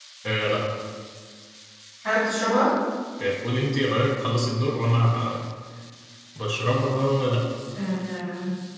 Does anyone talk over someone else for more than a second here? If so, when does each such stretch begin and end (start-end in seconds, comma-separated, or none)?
none